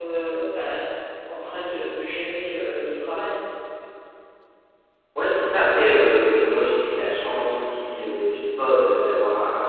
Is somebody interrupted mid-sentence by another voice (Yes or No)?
No